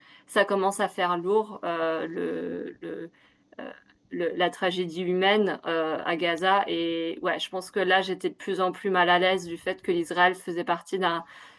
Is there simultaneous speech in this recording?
No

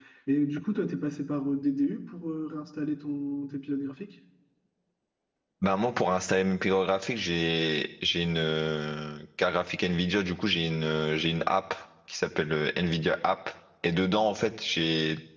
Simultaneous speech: No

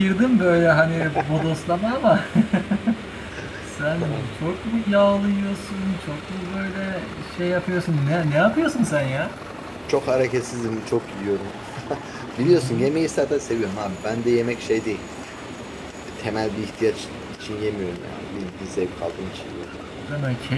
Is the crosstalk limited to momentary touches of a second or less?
Yes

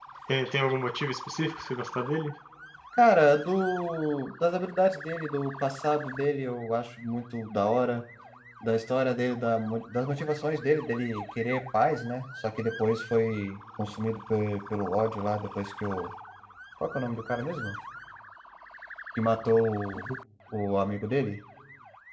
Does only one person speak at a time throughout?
Yes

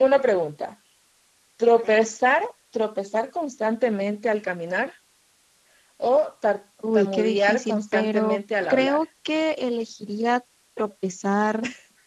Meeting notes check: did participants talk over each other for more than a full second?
Yes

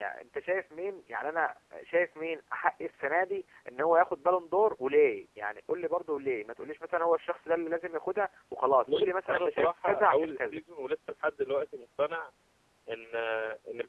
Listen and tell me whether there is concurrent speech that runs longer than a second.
Yes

